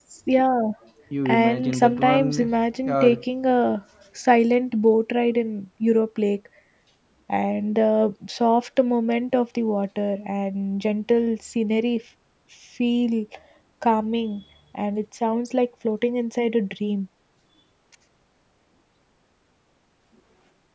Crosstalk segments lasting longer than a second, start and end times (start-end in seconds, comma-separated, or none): 1.2-2.5